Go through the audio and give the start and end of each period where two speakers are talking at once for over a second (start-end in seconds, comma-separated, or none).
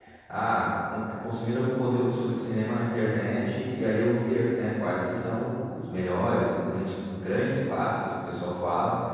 none